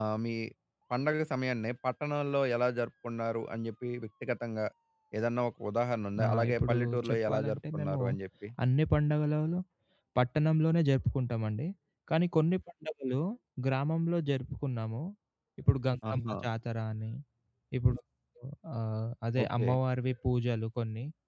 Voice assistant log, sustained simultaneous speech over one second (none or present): present